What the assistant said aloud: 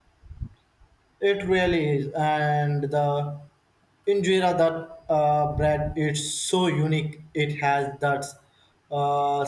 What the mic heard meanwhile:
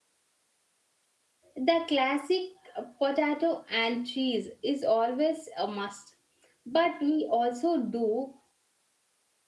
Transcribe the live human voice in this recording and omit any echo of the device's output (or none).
The classic uh, potato and cheese is always a must, but we also do